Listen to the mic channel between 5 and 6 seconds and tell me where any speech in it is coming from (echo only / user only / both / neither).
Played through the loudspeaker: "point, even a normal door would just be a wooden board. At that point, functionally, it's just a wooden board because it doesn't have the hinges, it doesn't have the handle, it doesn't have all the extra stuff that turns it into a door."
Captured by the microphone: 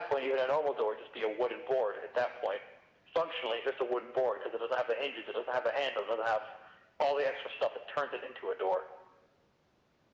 echo only